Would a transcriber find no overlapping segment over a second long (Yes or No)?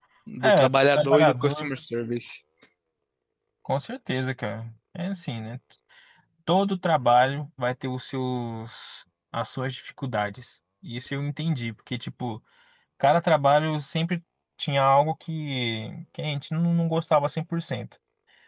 No